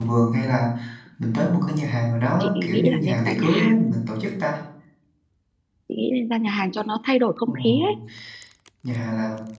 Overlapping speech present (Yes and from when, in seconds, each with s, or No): Yes, from 2.4 s